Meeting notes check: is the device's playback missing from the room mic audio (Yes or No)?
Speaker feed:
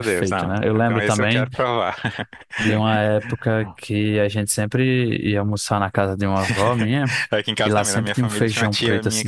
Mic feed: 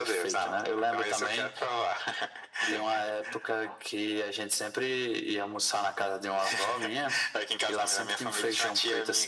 No